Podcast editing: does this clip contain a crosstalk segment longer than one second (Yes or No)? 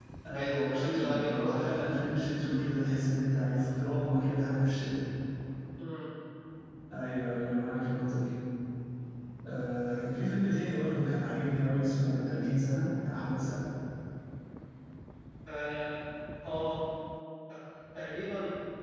Yes